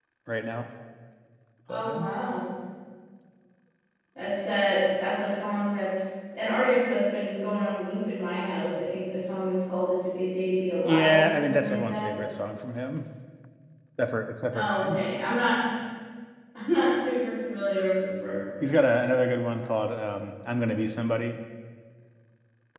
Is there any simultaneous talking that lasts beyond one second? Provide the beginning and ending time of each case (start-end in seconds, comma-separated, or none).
10.8-12.2